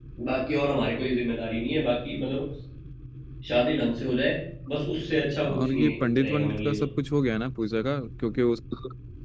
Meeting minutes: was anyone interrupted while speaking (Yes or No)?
Yes